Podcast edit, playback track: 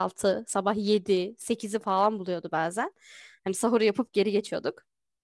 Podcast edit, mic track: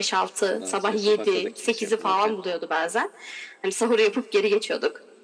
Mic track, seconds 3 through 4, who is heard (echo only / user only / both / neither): echo only